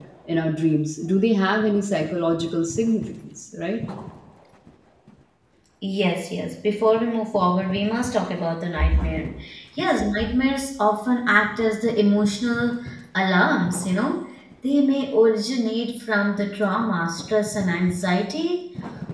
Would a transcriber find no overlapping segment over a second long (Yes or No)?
Yes